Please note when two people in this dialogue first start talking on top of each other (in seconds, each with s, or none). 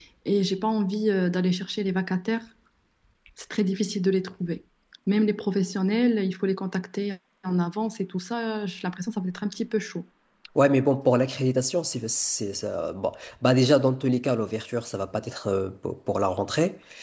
none